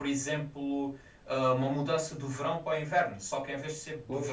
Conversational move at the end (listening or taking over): listening